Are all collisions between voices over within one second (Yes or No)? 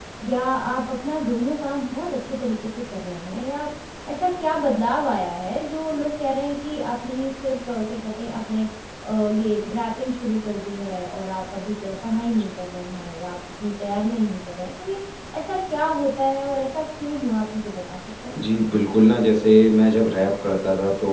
Yes